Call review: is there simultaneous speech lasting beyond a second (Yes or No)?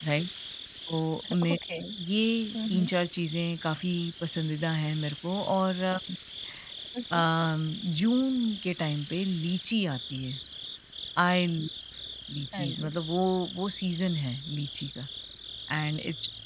No